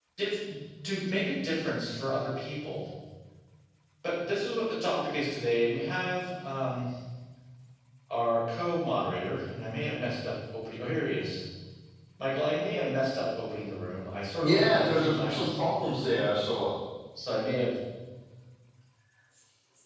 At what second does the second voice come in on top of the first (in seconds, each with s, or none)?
14.4 s